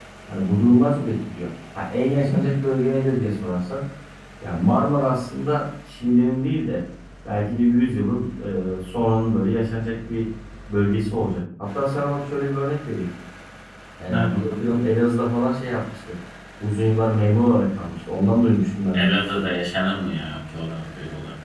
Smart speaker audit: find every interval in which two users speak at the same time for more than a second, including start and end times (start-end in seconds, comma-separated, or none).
none